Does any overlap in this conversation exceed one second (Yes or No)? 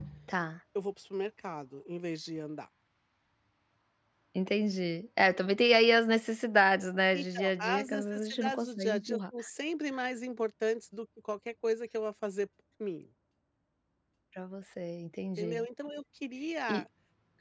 Yes